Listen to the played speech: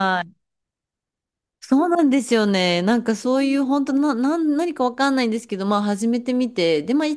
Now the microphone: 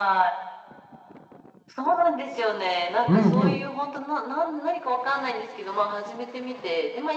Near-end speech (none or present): present